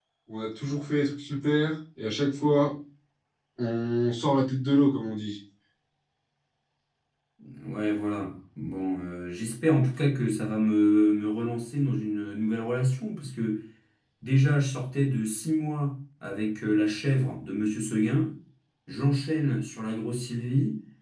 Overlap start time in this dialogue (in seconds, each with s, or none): none